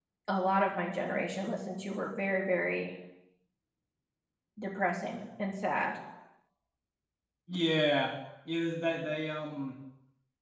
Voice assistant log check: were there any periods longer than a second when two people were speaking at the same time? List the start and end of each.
none

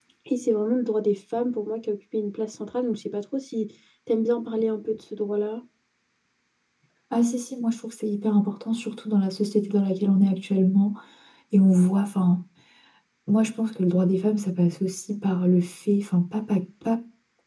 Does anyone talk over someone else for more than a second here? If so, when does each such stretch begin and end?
none

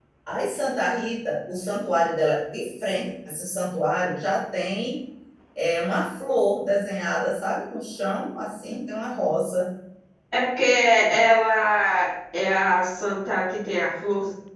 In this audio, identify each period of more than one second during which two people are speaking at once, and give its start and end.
none

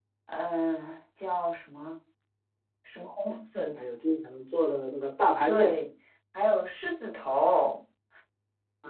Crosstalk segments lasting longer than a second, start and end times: none

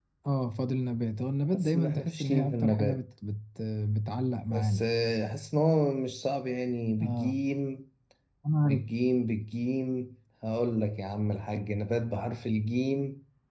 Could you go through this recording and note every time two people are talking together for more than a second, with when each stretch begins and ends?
1.5-3.0

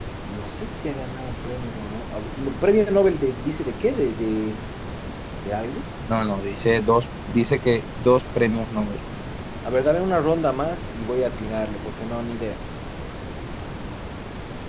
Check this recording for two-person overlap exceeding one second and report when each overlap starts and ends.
none

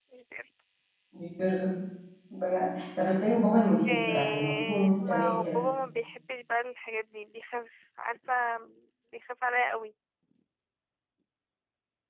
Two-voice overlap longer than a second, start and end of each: 3.9-5.6

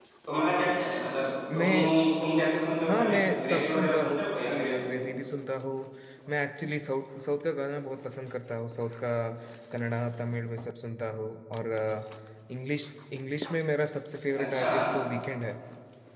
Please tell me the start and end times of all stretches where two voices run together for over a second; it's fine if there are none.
2.9-5.0

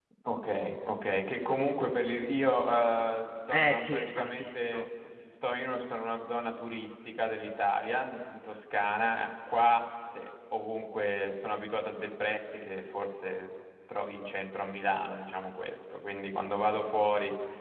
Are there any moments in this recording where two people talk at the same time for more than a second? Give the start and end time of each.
3.5-4.8

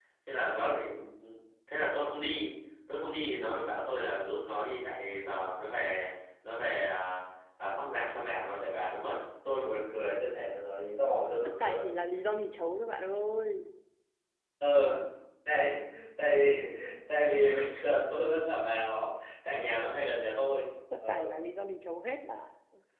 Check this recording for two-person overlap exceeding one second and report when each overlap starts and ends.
none

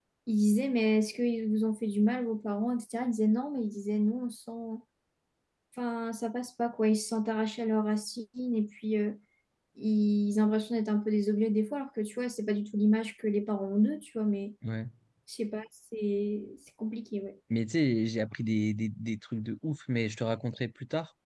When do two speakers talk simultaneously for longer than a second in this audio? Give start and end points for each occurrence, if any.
none

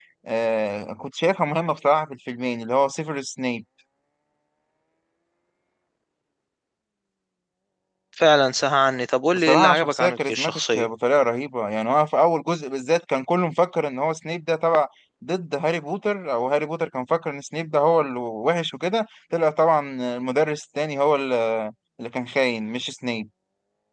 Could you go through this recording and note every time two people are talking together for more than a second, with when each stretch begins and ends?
9.3-10.8

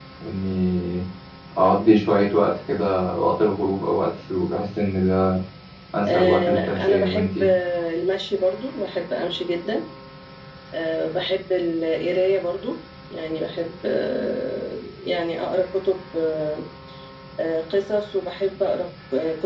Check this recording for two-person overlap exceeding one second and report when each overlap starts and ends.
6.1-7.5

